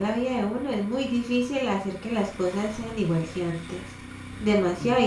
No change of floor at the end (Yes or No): Yes